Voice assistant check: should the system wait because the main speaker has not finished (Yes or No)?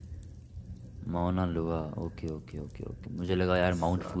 Yes